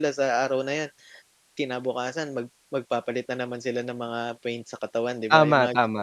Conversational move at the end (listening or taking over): taking over